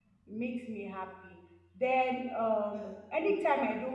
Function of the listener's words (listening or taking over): listening